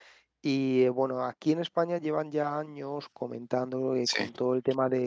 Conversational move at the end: listening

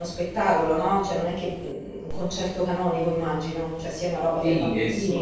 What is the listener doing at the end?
taking over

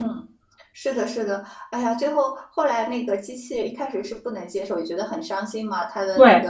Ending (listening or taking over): listening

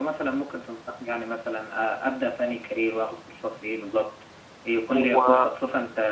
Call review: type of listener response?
listening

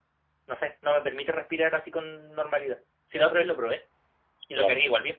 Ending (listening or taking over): listening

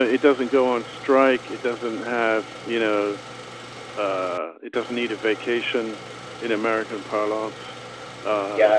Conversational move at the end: taking over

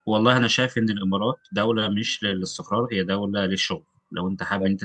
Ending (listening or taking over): listening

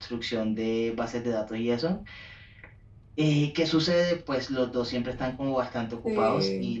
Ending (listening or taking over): listening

